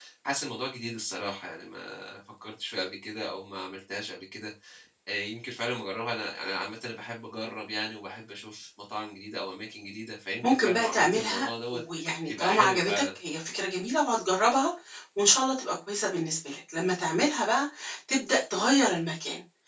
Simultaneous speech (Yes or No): Yes